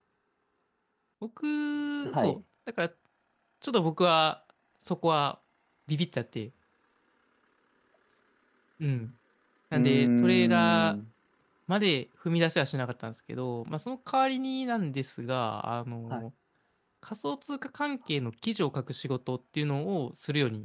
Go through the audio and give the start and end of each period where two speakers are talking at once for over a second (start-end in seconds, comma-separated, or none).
9.7-10.9